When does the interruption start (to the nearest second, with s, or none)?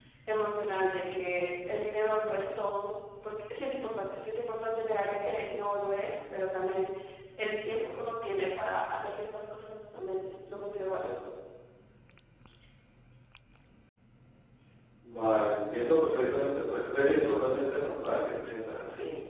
none